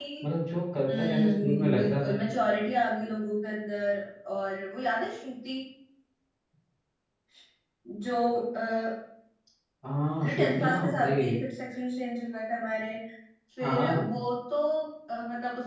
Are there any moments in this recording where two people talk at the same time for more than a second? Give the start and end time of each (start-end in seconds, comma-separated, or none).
0.9-2.2, 10.2-11.4